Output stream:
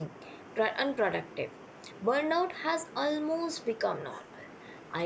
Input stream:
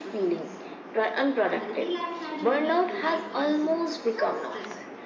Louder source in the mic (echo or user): echo